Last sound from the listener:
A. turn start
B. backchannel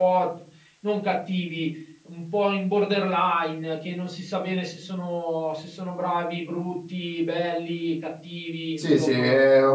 A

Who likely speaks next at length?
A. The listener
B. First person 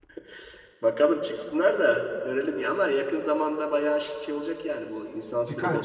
A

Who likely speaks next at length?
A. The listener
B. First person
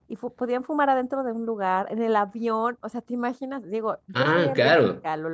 B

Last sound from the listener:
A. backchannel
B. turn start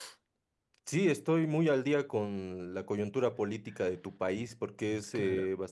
A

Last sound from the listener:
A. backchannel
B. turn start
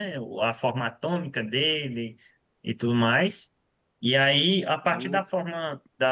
A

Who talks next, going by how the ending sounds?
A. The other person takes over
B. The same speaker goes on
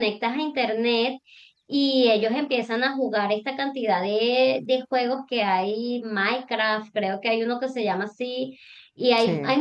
B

